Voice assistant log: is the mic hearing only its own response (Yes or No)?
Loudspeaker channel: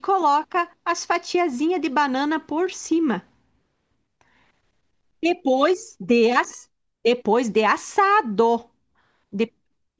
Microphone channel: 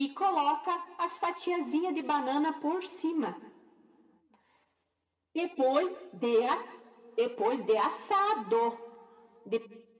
Yes